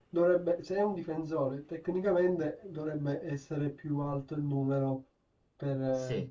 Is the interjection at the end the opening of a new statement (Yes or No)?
Yes